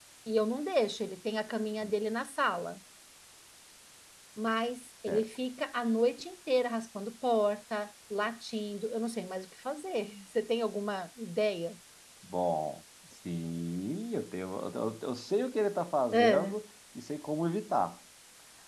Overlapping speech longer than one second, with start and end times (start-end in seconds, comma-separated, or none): none